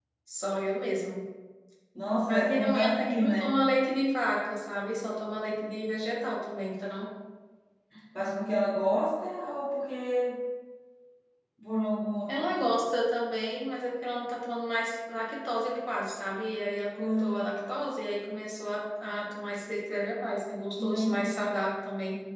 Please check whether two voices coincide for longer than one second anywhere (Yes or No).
Yes